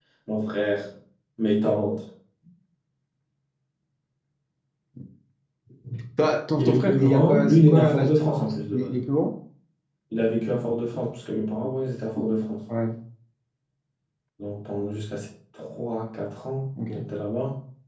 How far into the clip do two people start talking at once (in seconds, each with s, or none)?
6.6 s